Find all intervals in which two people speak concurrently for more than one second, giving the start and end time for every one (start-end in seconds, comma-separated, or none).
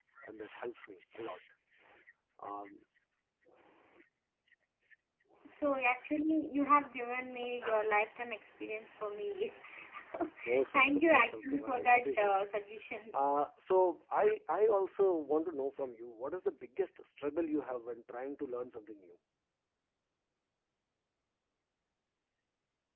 10.7-12.3